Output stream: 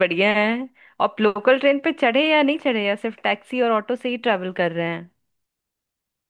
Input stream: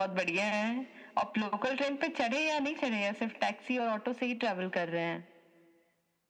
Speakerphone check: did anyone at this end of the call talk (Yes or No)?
No